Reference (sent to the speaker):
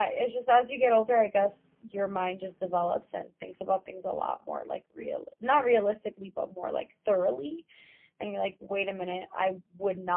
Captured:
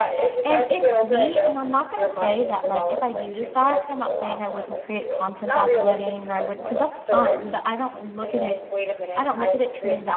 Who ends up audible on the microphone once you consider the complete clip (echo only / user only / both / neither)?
both